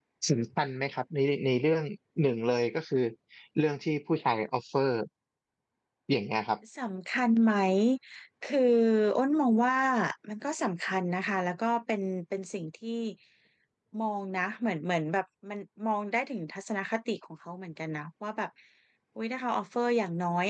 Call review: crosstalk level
none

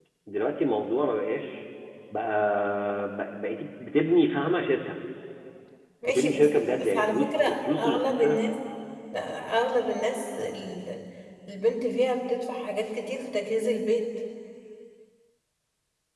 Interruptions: present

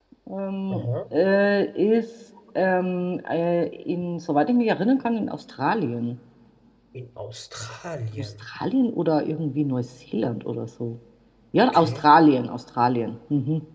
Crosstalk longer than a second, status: none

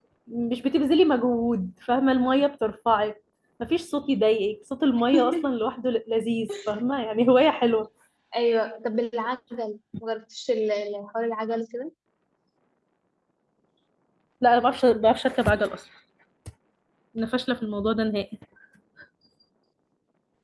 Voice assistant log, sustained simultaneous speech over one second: none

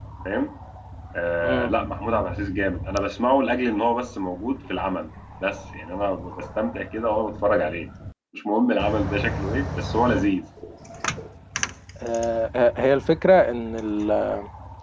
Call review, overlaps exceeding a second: none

